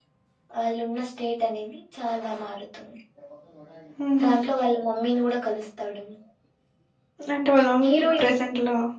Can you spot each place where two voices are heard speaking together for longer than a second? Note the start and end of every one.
none

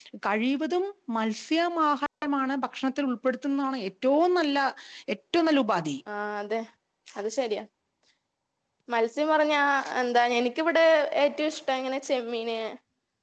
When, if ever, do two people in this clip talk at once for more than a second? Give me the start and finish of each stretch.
none

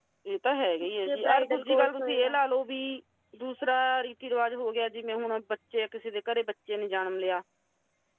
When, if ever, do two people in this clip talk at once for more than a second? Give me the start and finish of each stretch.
1.1-2.3

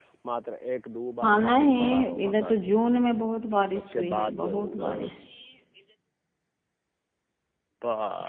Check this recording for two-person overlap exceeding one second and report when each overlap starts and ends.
1.2-2.6, 3.8-5.0

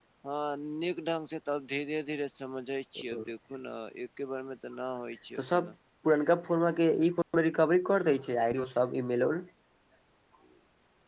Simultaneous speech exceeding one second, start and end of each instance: none

